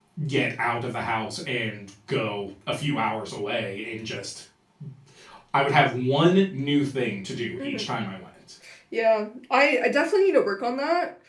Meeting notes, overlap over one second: none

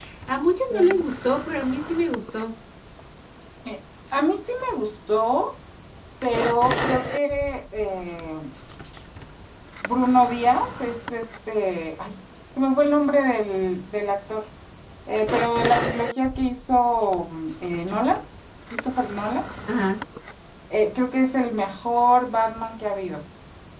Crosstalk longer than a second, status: none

